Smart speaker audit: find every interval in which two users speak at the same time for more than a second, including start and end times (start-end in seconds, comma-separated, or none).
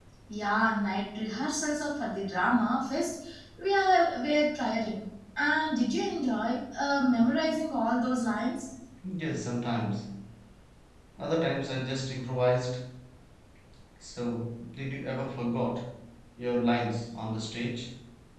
none